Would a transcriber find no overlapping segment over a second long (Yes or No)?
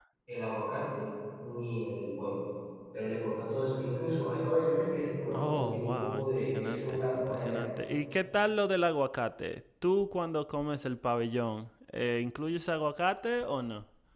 No